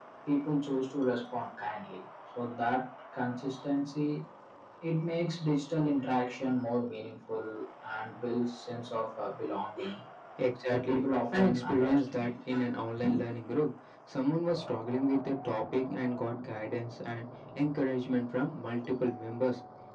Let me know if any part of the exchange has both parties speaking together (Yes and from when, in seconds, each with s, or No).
Yes, from 10.7 s